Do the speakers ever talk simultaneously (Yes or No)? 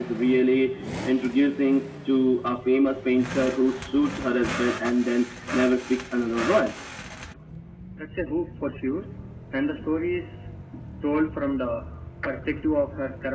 No